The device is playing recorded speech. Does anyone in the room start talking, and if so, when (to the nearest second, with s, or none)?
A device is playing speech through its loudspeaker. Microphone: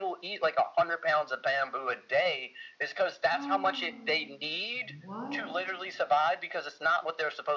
3 s